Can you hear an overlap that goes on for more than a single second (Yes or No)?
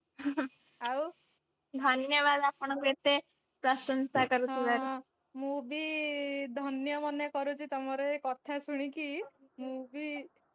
No